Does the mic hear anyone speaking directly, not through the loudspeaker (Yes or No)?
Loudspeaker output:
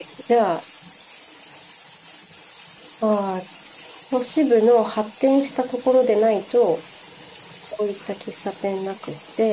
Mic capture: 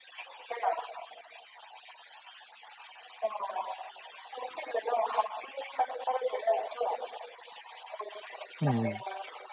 Yes